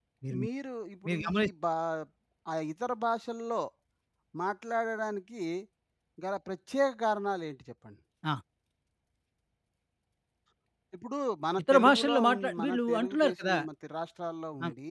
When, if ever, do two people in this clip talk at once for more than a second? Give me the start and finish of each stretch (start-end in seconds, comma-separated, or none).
11.6-13.6